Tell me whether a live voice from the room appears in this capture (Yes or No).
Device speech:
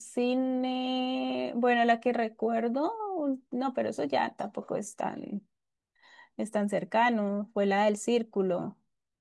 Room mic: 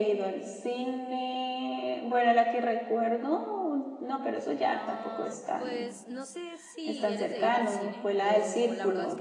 Yes